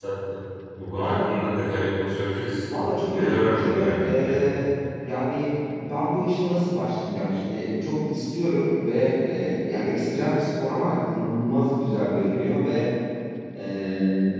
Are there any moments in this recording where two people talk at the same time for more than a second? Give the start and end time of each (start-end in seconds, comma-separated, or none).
3.1-4.6